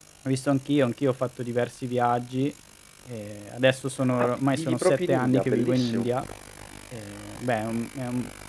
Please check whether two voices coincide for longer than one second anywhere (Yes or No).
Yes